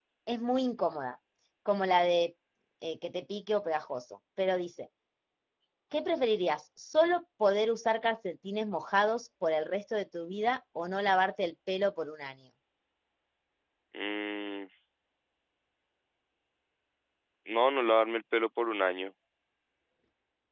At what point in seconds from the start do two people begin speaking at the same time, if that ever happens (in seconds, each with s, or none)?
none